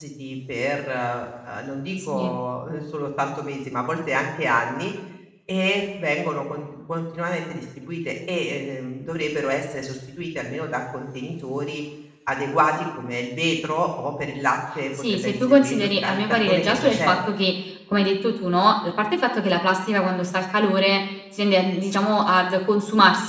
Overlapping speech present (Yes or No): Yes